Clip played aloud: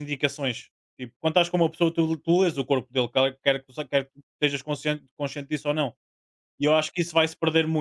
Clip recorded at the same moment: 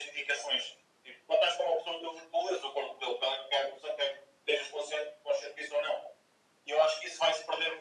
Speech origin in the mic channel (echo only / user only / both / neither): echo only